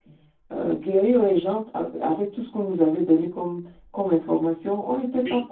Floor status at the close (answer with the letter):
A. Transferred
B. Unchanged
A